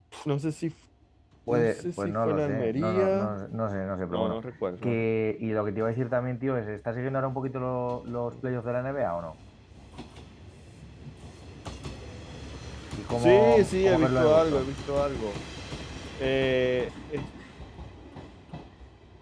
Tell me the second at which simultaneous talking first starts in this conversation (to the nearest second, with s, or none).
1 s